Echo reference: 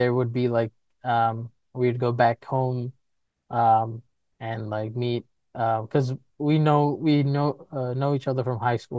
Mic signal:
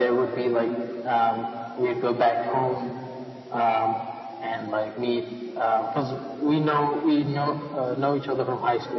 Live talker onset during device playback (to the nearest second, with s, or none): none